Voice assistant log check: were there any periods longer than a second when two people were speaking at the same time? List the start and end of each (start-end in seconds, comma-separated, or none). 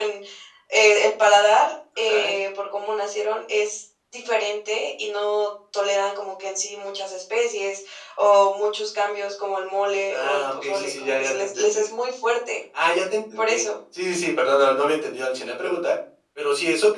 10.1-11.8